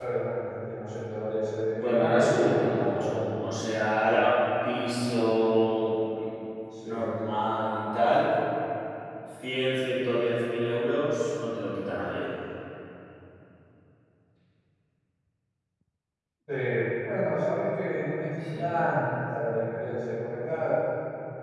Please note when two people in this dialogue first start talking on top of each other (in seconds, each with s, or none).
1.8 s